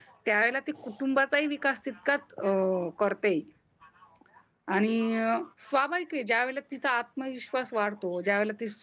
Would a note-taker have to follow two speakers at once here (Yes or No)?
No